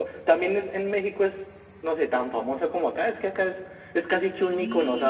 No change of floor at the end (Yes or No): Yes